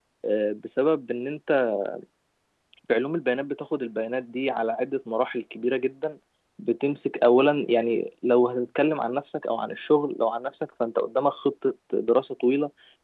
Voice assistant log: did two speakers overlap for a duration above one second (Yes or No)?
No